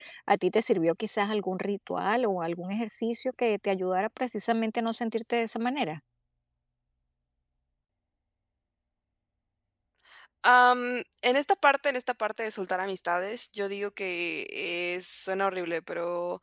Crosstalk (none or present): none